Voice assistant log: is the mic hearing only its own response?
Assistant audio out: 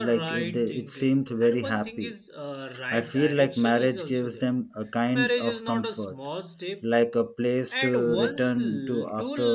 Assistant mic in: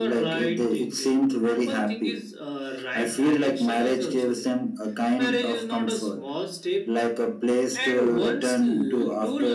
Yes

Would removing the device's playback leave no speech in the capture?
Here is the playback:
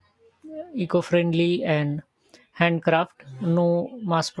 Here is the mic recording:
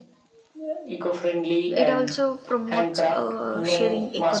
No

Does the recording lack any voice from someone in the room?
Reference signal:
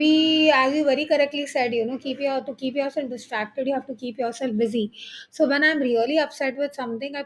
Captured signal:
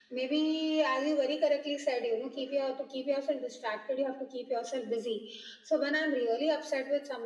Yes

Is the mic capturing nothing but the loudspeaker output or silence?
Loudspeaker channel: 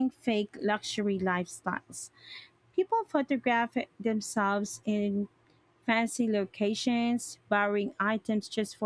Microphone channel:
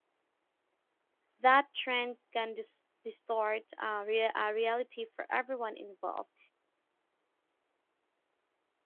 No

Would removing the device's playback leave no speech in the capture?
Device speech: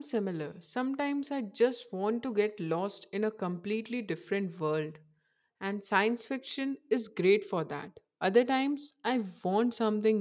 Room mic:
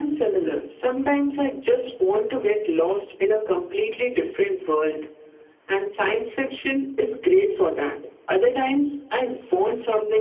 Yes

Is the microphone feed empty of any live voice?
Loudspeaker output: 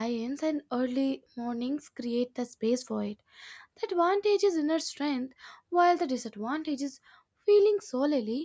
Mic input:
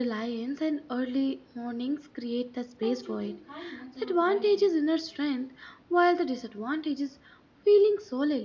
No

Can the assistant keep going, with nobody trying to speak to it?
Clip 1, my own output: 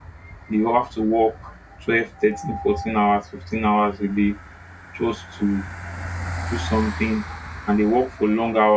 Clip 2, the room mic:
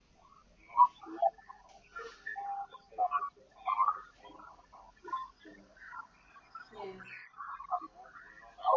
No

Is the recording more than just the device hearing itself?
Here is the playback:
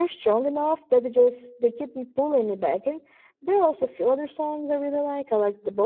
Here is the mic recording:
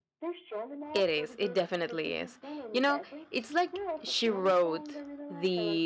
Yes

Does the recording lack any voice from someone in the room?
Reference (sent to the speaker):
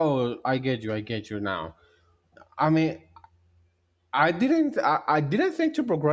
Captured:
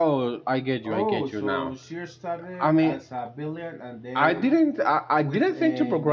No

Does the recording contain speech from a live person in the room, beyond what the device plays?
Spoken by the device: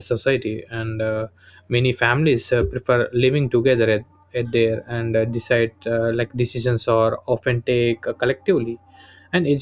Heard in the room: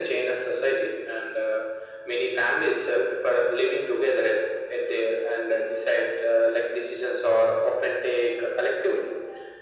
No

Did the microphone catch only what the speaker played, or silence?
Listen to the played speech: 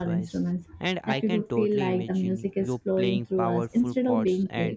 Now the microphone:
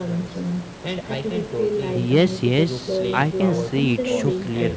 No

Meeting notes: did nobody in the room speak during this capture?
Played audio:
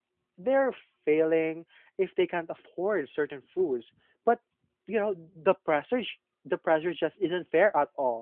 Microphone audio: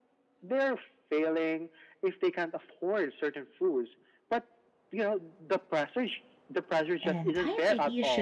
No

